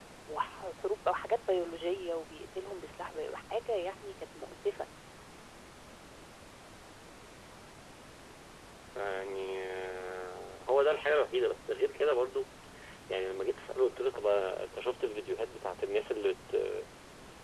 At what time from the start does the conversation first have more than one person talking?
none

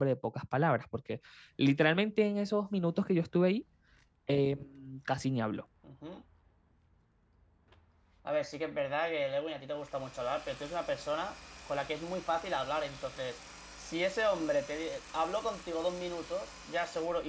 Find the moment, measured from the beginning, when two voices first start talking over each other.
none

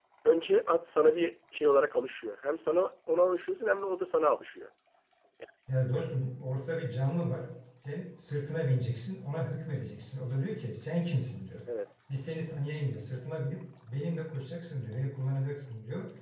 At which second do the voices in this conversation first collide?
none

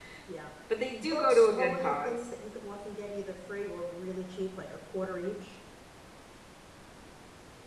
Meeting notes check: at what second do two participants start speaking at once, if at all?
1 s

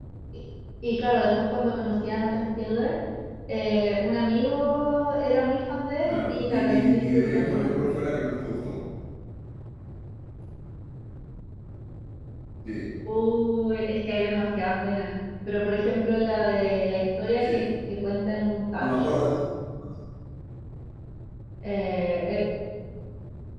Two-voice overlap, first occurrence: 6 s

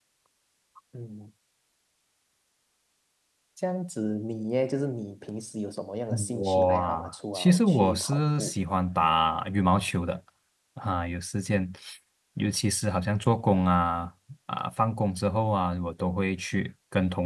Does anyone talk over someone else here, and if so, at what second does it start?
6 s

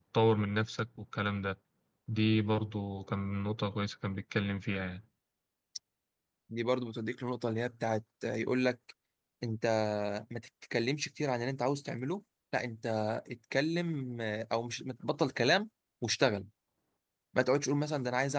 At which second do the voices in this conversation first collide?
none

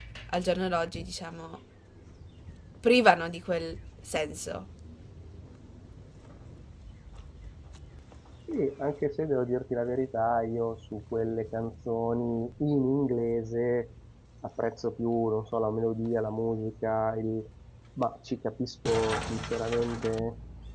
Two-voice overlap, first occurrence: none

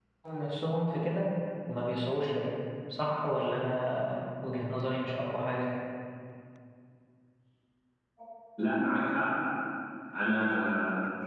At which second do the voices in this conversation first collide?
none

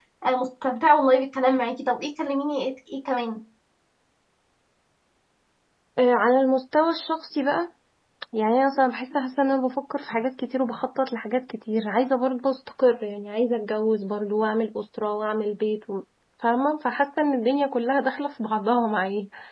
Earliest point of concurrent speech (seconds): none

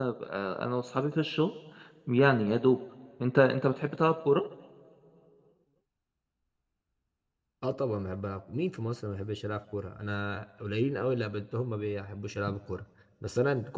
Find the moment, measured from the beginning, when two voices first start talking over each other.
none

